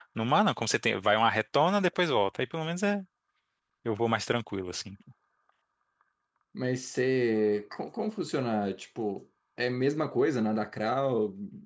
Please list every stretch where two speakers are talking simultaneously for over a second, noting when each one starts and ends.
none

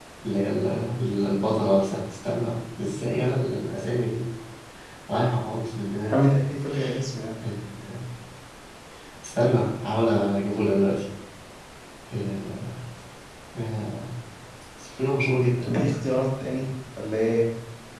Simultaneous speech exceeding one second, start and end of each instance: none

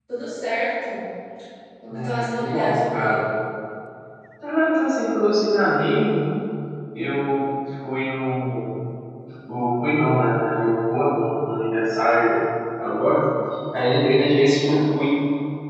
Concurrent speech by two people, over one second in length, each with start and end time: 1.9-3.2

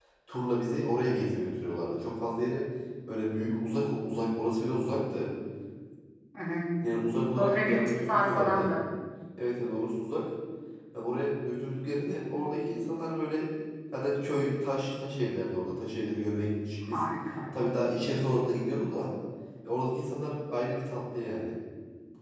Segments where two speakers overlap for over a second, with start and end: 7.3-8.7

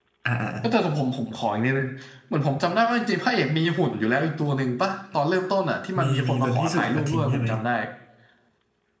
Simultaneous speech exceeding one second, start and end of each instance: 6.0-7.5

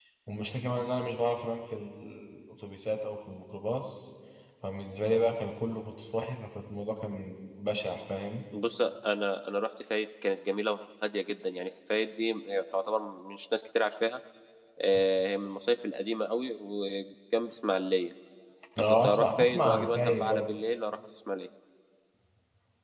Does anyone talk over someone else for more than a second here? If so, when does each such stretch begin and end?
19.0-20.5

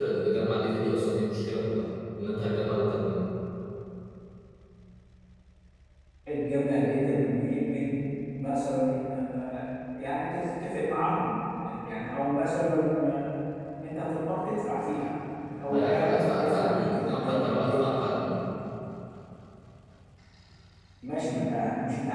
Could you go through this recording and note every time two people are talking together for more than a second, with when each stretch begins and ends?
15.7-17.9

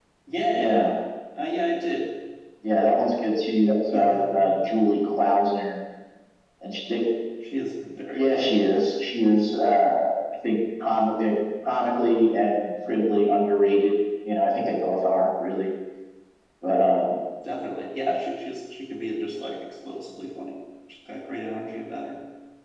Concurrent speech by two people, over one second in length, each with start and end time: none

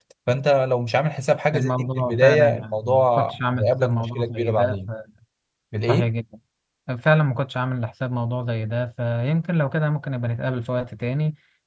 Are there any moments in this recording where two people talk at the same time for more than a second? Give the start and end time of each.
1.5-4.8

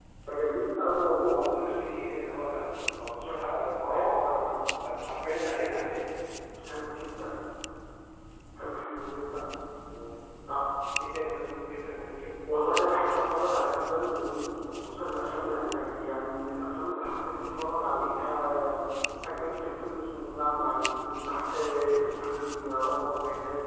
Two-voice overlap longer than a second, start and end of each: none

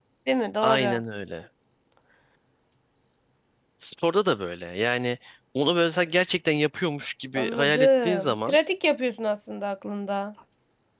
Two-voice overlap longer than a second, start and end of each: 7.3-8.6

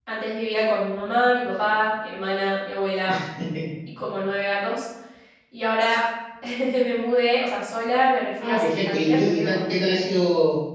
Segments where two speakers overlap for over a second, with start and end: 8.4-10.0

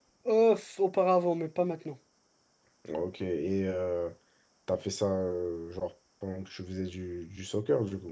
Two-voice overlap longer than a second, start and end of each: none

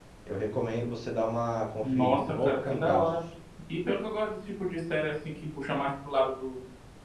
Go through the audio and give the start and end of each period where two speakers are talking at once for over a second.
1.8-3.1

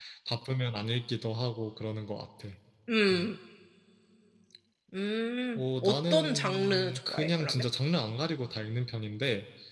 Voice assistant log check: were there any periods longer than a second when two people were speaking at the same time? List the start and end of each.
5.6-7.6

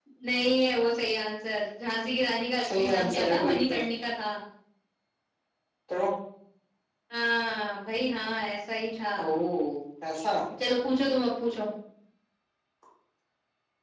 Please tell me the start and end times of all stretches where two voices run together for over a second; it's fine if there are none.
2.6-3.9

